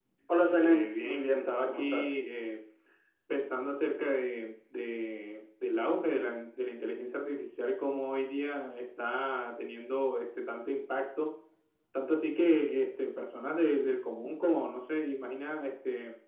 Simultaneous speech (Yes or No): Yes